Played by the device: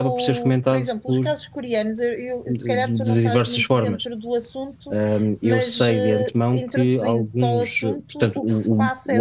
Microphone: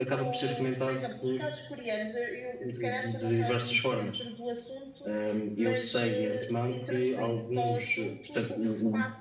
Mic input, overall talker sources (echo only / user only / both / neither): echo only